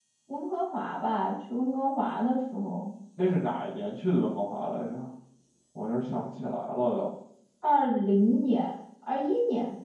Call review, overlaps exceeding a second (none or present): none